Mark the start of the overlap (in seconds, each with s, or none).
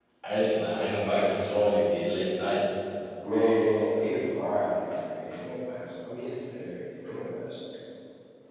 none